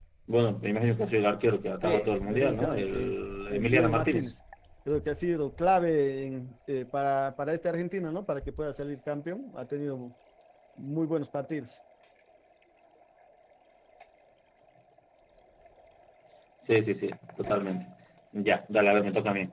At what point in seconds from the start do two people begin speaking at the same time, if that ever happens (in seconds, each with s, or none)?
1.8 s